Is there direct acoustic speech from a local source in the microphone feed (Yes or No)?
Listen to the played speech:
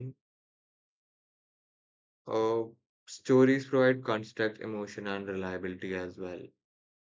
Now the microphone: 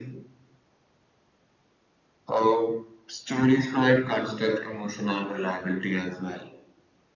No